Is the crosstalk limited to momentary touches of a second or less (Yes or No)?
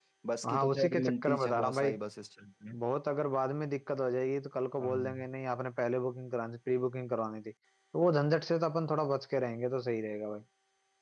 No